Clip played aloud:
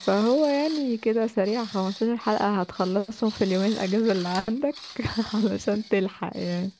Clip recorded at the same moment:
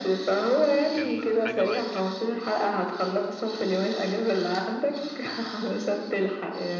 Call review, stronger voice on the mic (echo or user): echo